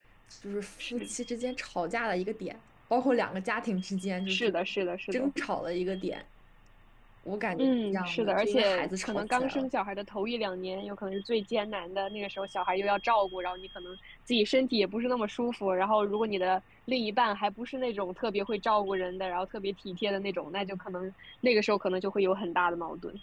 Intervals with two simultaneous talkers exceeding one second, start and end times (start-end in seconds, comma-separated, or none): 7.6-9.7